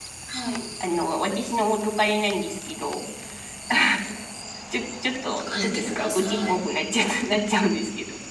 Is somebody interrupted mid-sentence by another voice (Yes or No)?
Yes